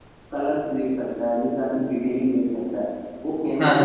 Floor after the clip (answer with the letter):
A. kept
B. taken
A